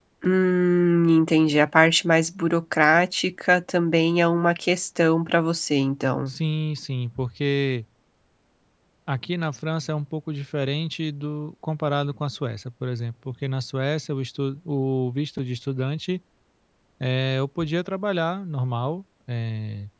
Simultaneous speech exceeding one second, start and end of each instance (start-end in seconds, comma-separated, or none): none